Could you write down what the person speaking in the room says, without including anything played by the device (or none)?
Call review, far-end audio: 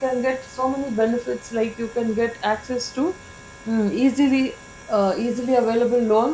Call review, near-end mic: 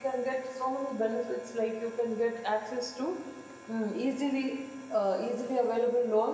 none